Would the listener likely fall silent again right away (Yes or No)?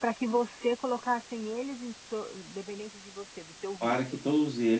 No